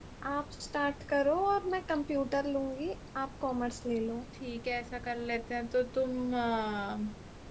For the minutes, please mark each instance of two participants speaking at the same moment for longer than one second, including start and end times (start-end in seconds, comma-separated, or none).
none